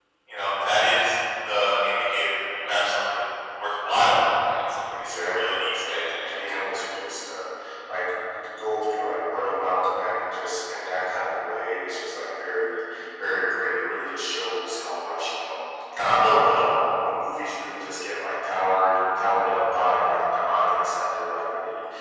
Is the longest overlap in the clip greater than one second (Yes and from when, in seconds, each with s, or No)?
Yes, from 4.9 s